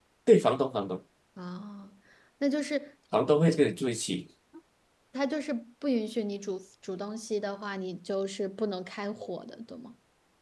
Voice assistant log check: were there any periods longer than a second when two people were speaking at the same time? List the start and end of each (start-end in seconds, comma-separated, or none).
none